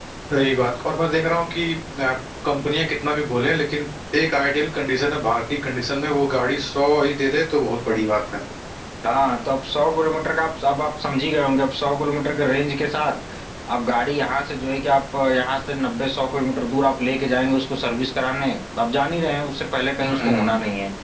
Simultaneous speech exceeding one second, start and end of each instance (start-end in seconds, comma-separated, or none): none